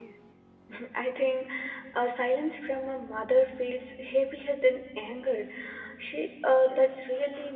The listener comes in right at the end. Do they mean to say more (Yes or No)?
No